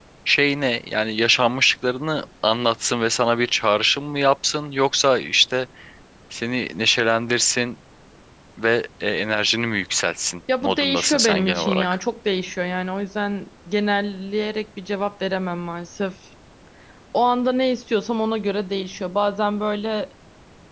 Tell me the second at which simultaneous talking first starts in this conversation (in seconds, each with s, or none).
10.5 s